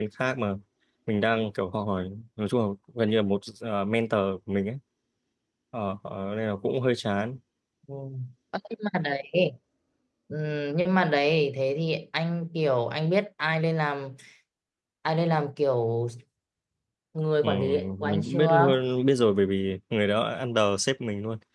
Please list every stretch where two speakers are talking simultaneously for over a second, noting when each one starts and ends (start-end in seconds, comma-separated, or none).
17.4-18.7